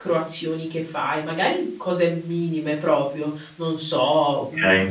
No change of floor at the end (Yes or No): Yes